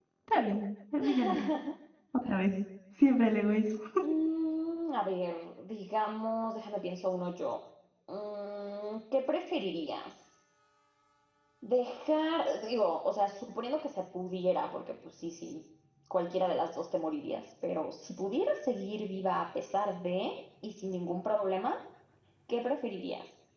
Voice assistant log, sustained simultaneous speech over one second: none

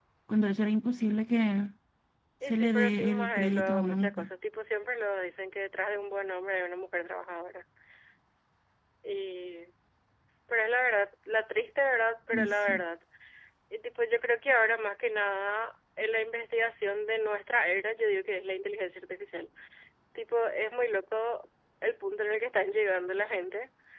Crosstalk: present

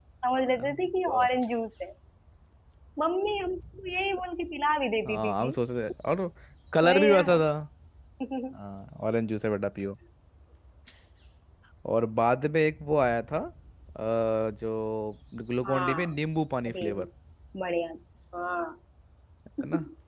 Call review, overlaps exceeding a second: none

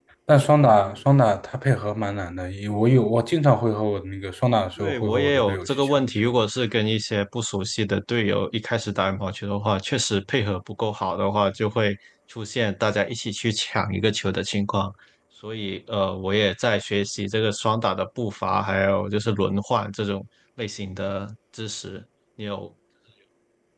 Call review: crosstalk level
present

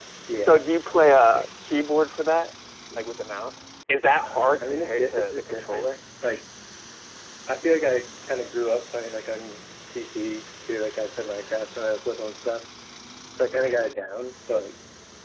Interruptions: present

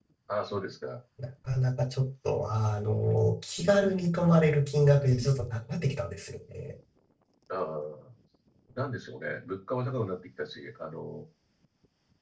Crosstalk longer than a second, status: none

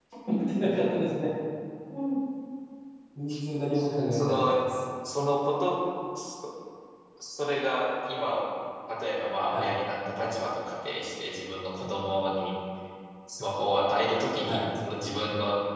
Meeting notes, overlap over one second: none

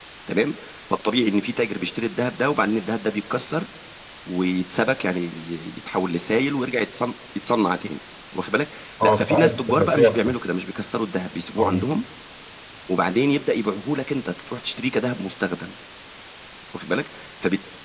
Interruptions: present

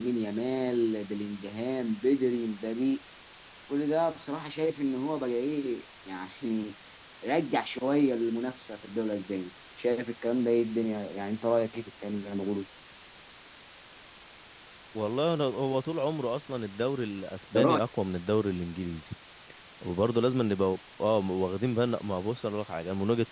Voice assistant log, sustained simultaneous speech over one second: none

